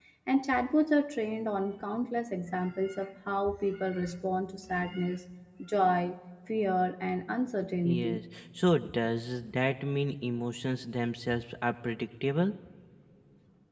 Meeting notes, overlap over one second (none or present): none